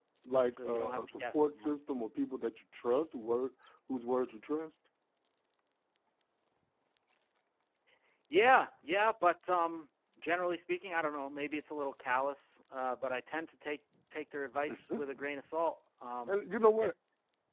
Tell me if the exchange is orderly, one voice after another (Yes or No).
No